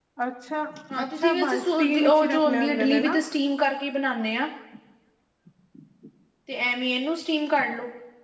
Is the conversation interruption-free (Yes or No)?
No